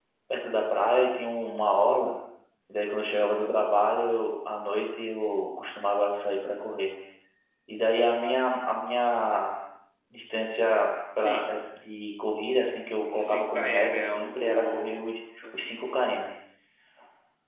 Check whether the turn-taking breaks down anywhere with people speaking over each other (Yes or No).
Yes